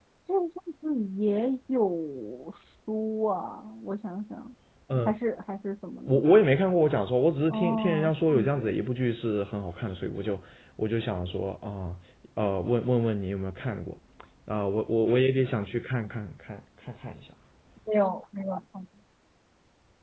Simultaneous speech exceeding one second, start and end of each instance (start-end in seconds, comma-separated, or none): 7.5-8.7